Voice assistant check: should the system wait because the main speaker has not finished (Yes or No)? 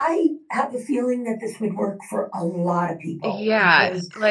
No